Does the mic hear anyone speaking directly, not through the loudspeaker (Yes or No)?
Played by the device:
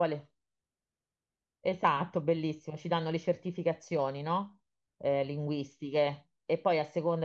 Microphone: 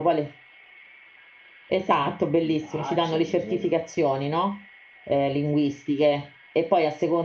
Yes